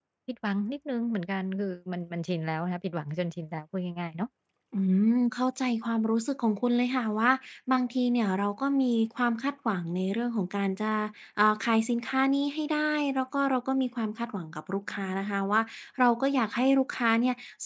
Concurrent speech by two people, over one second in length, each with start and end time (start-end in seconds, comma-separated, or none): none